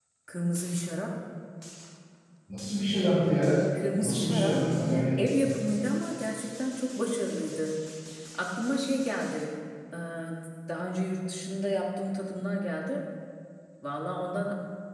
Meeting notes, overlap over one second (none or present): present